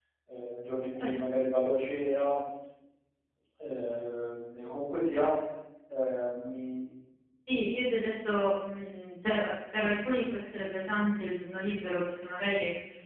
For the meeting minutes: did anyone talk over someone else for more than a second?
No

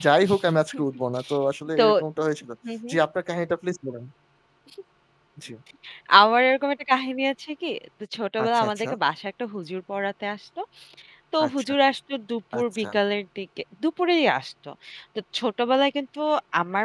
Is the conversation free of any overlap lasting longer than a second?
Yes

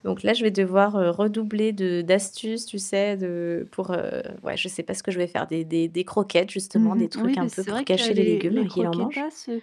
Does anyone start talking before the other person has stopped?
Yes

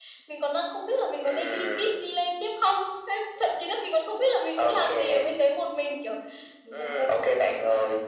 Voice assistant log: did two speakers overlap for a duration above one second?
Yes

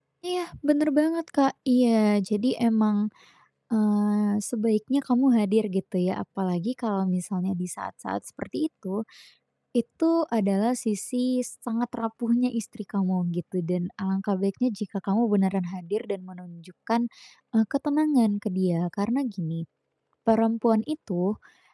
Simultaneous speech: No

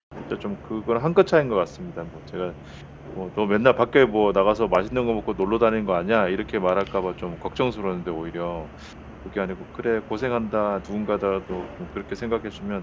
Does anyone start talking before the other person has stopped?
No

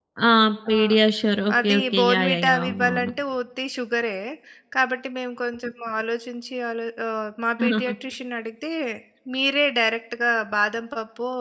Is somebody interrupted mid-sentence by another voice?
Yes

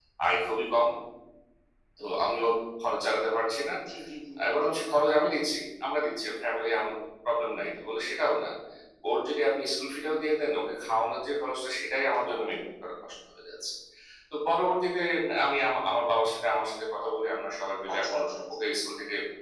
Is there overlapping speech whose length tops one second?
No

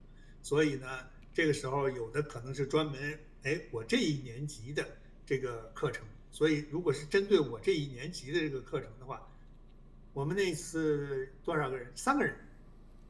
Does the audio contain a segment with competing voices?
No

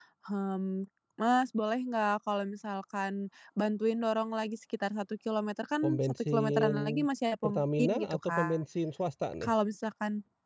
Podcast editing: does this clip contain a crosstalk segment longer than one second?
Yes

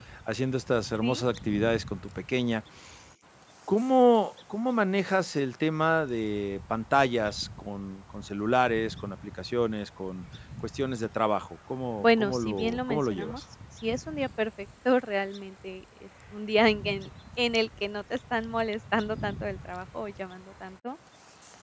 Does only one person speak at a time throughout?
No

